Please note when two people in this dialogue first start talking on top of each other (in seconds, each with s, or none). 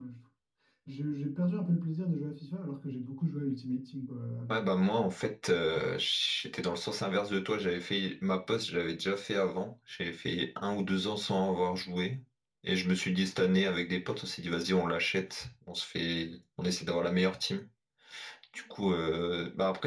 none